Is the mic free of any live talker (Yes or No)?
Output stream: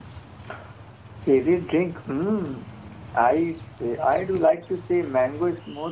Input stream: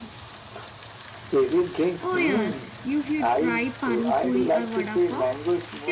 No